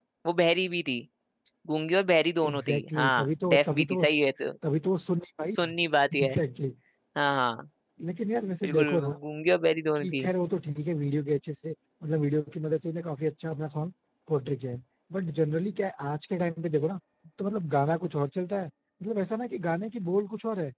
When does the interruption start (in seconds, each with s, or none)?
2.5 s